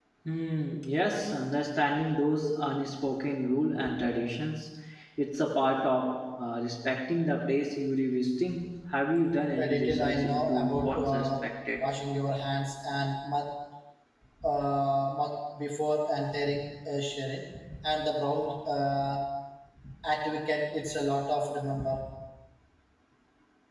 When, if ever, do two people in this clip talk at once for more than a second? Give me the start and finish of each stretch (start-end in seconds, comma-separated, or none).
9.6-11.3